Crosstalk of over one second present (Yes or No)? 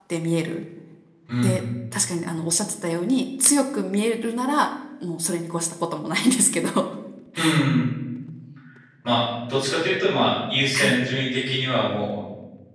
No